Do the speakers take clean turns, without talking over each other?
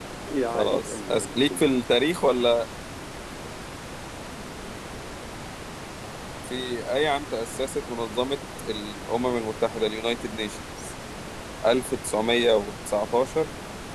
No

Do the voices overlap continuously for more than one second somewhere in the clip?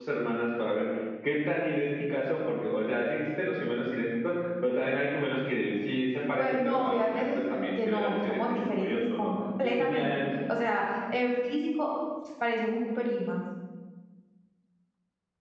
Yes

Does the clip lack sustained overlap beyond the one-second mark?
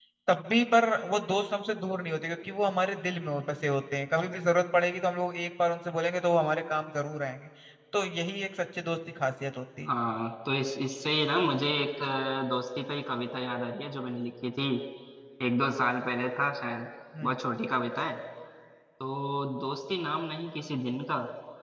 Yes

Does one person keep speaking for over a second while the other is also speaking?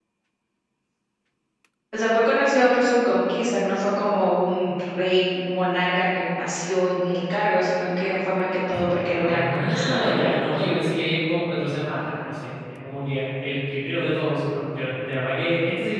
Yes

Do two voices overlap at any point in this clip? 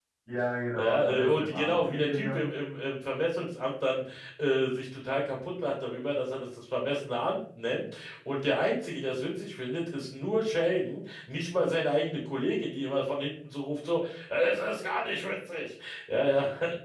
Yes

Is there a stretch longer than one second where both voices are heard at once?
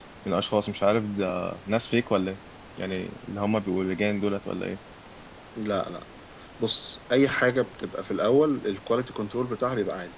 No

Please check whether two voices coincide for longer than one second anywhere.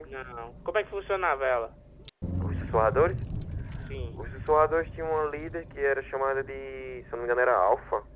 No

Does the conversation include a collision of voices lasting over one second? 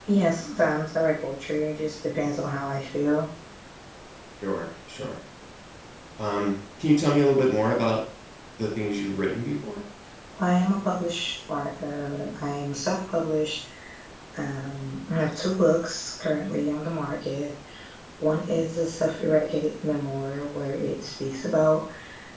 No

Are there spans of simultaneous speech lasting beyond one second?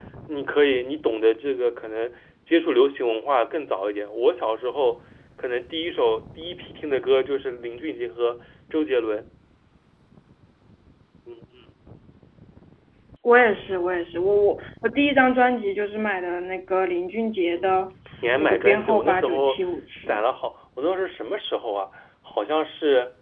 Yes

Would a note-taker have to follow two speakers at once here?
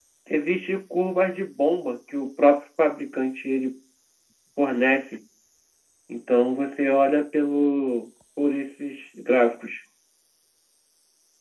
No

